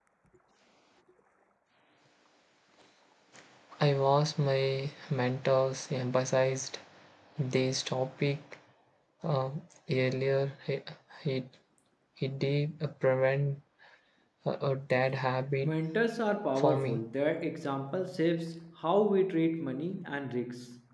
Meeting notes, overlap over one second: none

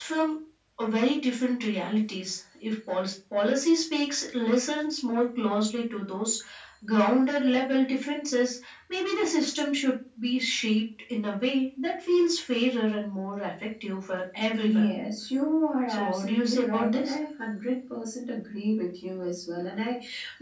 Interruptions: present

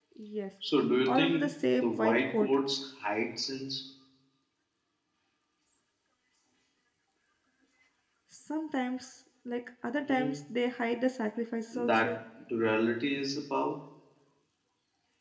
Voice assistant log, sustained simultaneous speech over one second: present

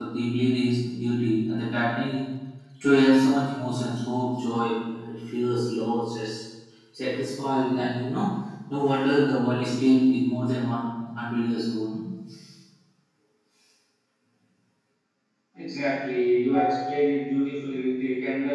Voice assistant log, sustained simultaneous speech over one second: none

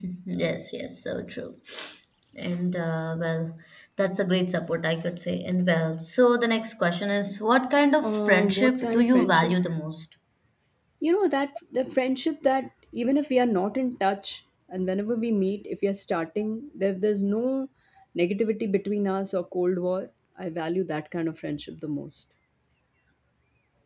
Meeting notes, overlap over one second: present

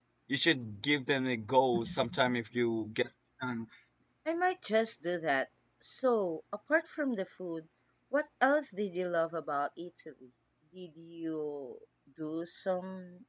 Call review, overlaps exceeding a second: none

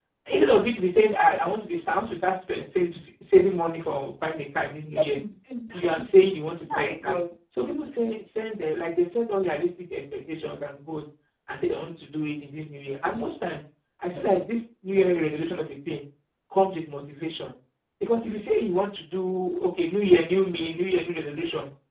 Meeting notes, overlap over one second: none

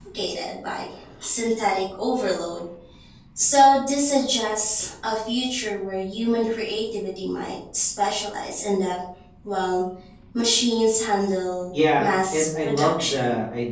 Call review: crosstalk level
present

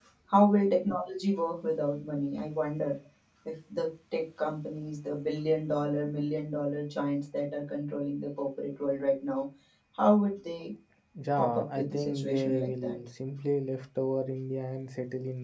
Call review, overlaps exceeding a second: present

